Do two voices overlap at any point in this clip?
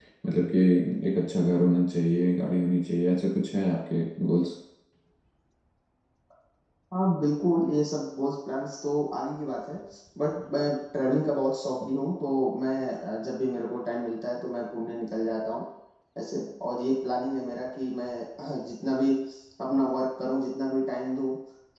No

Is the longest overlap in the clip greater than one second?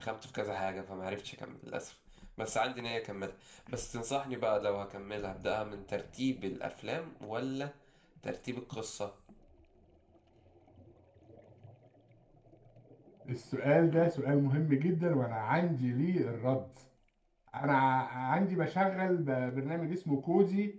No

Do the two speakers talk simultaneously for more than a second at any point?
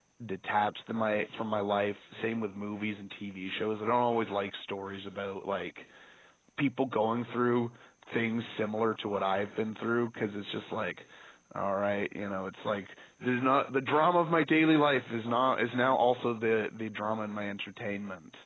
No

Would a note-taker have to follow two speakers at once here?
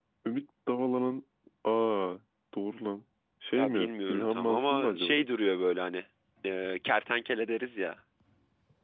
Yes, from 3.5 s

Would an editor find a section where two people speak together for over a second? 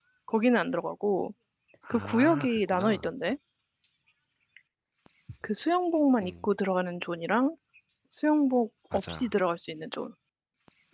Yes, from 1.9 s

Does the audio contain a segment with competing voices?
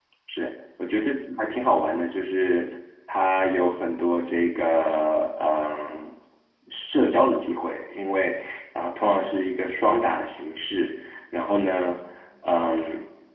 No

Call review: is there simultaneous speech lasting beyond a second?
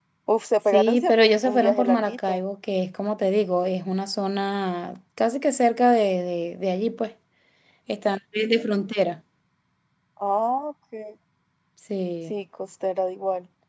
Yes, from 0.7 s

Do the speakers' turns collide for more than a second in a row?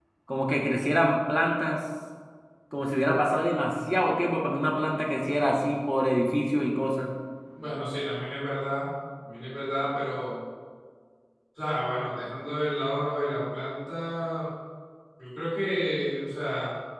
No

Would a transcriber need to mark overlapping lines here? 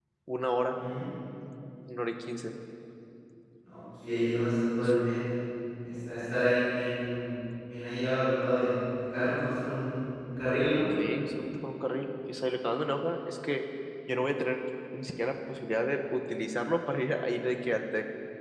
No

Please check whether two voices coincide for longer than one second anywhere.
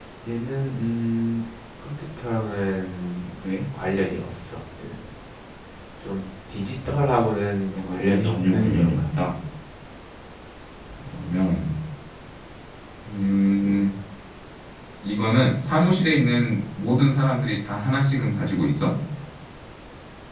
Yes, from 7.7 s

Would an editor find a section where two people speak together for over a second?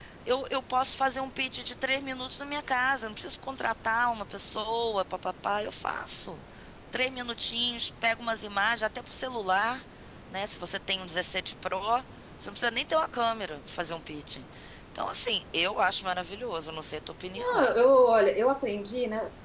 No

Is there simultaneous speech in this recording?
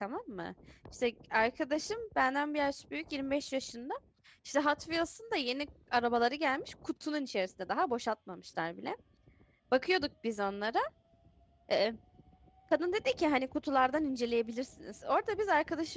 No

